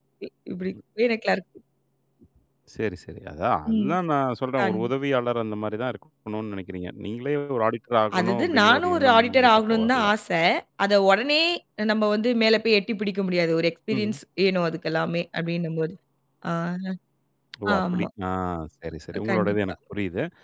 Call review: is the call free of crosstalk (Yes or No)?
No